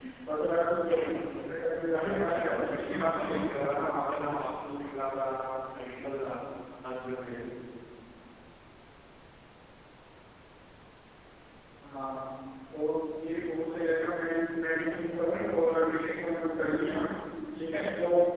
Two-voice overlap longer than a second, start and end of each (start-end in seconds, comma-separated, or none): 2.0-3.3